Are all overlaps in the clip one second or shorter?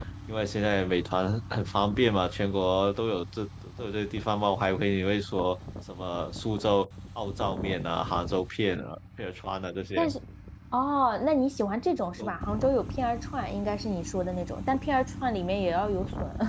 Yes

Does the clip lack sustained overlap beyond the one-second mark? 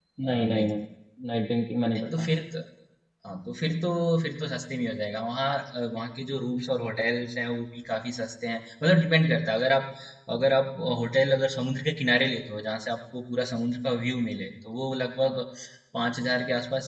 Yes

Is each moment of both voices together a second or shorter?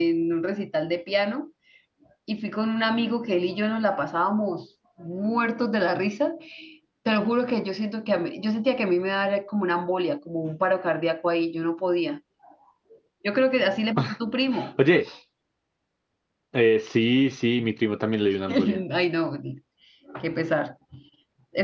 Yes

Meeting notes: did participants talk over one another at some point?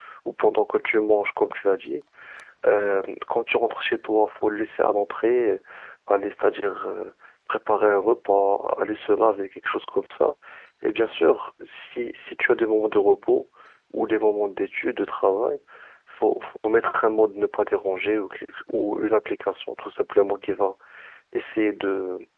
No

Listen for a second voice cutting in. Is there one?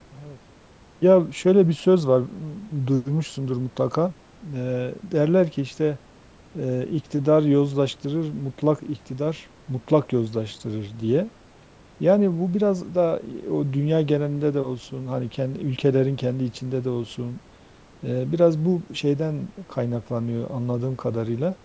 No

